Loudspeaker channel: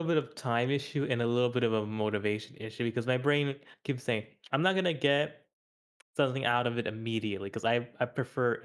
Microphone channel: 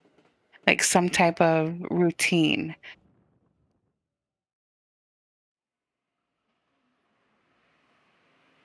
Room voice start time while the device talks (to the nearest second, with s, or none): 1 s